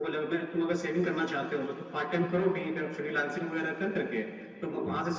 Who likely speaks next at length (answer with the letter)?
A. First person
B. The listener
A